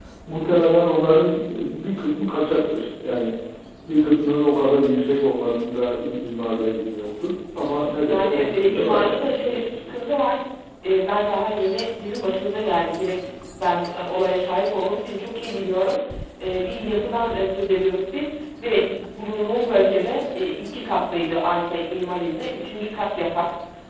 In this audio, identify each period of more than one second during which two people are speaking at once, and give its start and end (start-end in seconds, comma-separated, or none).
8.1-9.9